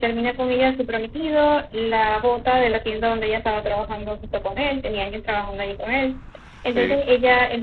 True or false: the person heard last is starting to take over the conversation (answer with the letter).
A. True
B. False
B